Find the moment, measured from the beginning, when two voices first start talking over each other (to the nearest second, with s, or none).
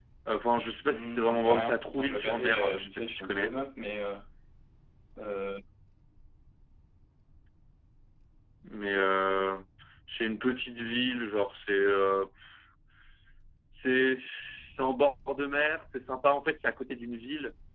1 s